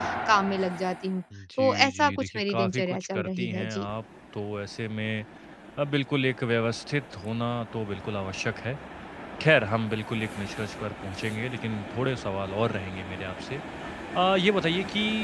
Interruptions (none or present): present